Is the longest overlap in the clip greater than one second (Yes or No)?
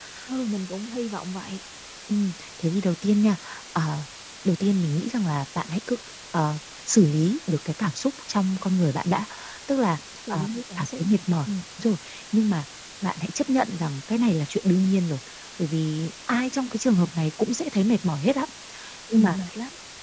No